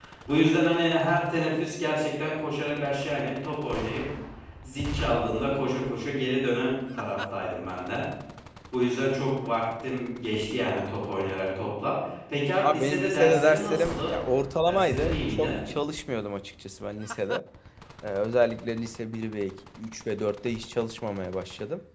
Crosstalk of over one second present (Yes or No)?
Yes